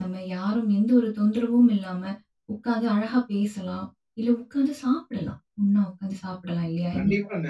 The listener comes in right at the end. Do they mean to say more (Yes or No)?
Yes